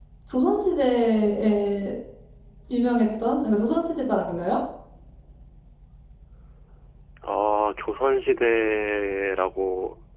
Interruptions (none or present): none